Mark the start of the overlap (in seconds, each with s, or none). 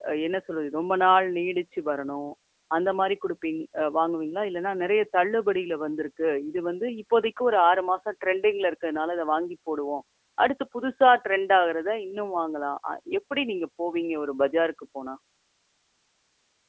none